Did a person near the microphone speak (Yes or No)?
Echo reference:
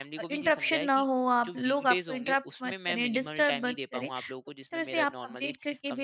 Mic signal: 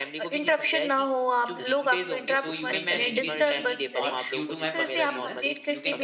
Yes